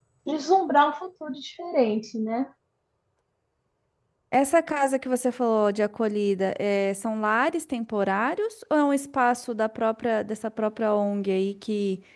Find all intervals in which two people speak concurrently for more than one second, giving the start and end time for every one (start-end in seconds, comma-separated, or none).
none